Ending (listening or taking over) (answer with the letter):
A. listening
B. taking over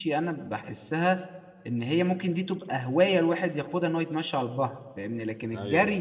A